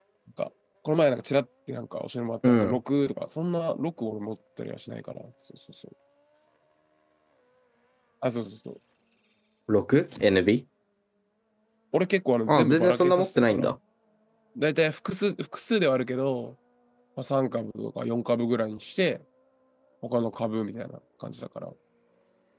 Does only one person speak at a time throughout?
No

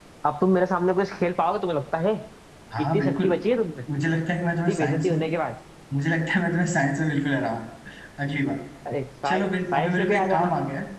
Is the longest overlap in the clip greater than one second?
Yes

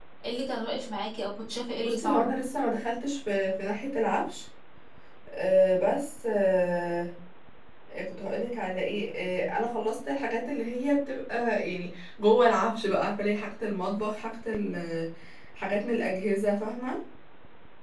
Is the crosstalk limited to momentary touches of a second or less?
Yes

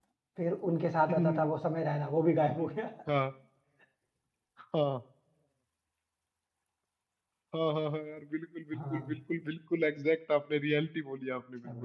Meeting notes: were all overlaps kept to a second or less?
Yes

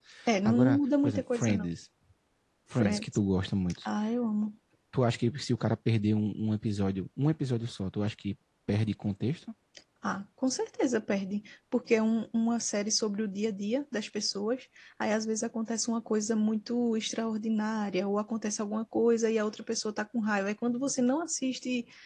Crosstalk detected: Yes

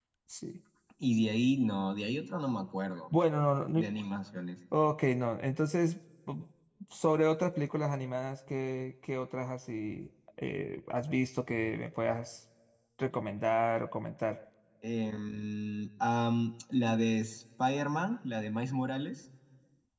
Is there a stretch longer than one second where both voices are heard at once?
No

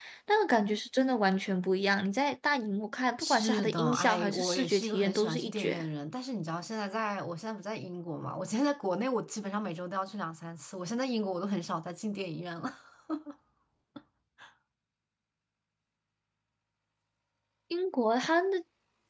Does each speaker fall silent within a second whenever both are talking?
No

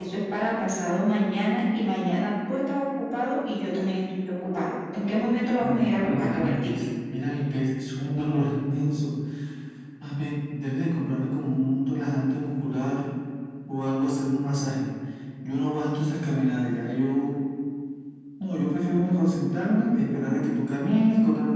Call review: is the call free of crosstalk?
No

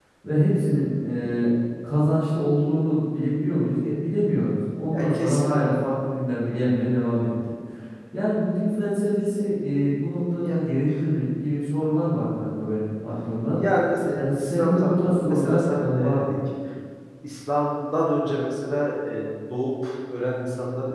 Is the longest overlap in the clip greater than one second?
Yes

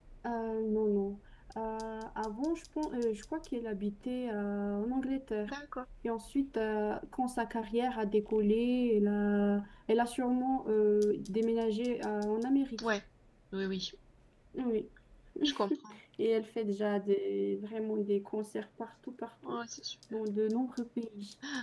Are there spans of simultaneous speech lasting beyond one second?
No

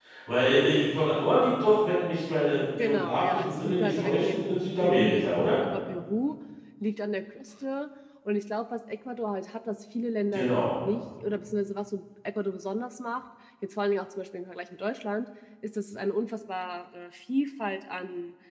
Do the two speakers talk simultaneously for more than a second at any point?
Yes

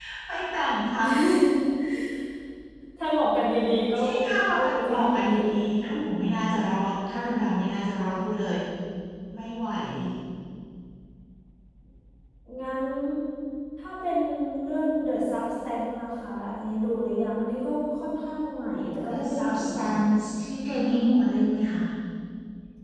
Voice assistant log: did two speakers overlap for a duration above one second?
Yes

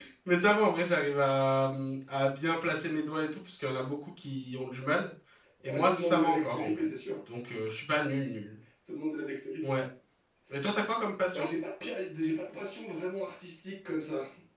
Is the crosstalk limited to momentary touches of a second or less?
No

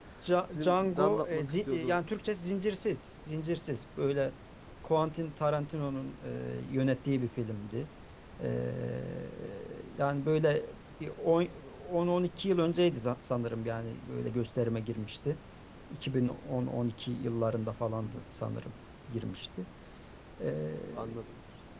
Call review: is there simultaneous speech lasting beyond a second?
Yes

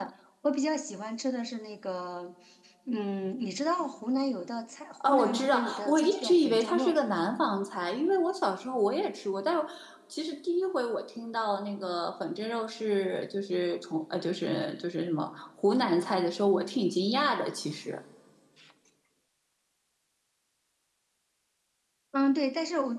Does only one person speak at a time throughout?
No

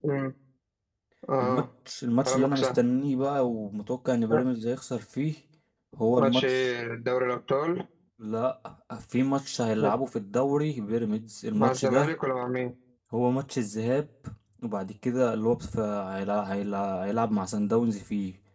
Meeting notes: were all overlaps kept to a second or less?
Yes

